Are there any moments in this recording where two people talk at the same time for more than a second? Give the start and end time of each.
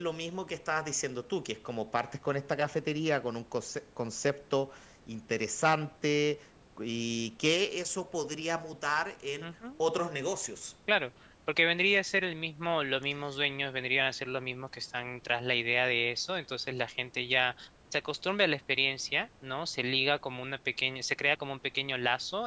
none

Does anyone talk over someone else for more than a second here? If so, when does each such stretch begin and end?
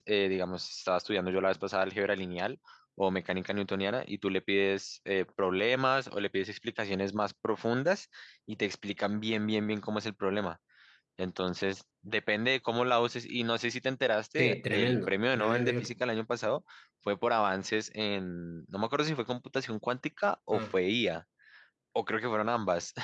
14.4-15.8

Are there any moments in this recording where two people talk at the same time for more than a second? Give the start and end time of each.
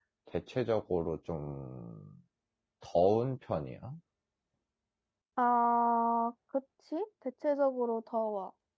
none

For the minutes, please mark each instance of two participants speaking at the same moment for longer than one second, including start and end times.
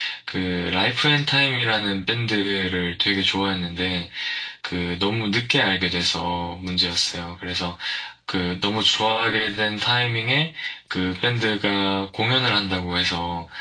none

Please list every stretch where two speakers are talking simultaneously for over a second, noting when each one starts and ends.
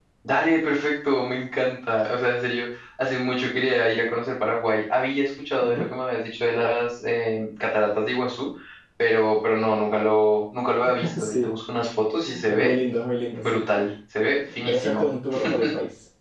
none

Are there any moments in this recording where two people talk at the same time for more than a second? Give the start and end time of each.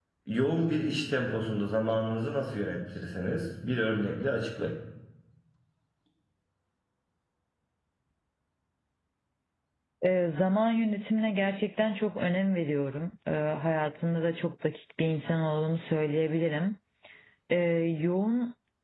none

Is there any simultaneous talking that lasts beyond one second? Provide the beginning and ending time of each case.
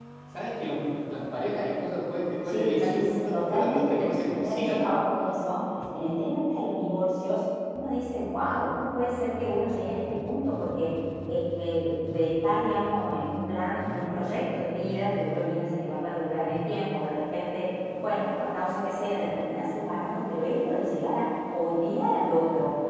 2.5-4.8

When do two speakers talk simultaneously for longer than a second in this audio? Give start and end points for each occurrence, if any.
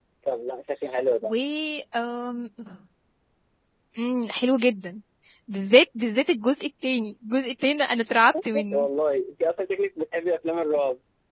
none

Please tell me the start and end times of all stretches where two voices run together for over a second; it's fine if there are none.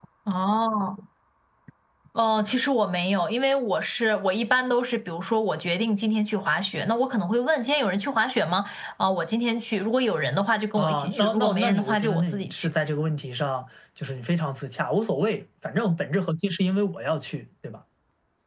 10.8-12.7

